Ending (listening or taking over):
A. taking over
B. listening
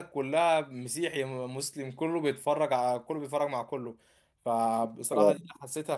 B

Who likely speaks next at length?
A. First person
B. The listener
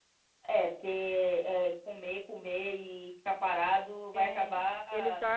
B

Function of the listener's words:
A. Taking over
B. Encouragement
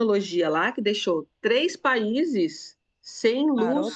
B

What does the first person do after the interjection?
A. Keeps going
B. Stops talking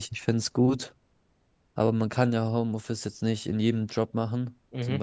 A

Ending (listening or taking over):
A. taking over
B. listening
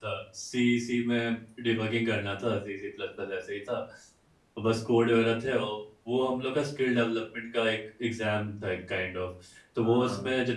B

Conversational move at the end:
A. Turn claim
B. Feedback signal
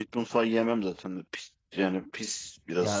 A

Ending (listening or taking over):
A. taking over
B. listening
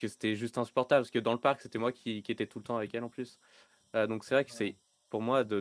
B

